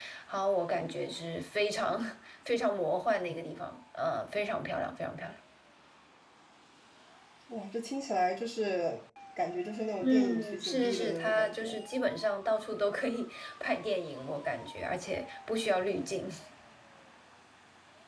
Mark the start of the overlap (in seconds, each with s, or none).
10.0 s